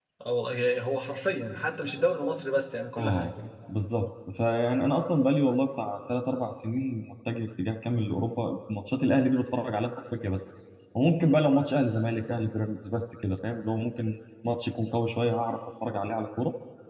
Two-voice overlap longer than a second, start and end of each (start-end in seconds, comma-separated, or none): none